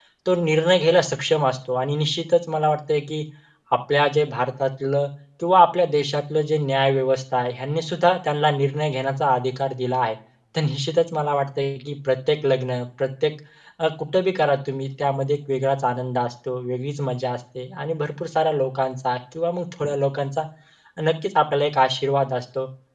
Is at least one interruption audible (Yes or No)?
No